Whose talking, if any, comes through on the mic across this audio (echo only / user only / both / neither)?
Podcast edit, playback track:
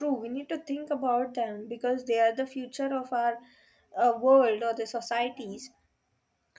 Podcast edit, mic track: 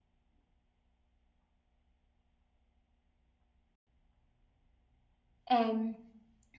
user only